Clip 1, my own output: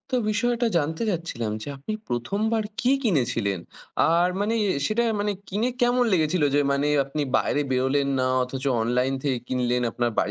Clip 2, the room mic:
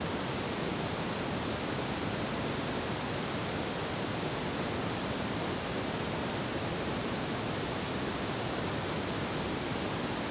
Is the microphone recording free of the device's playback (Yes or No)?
Yes